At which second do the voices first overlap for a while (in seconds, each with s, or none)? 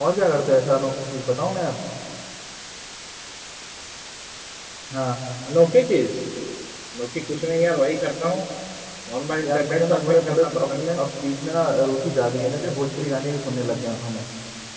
9.4 s